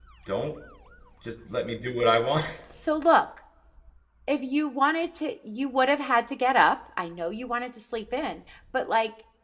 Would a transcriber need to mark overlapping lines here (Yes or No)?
No